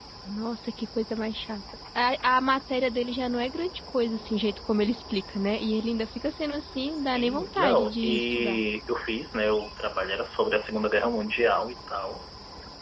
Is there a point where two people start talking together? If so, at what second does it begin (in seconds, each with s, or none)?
7.0 s